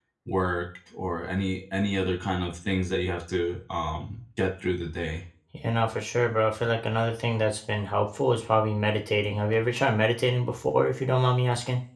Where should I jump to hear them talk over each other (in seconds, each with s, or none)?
none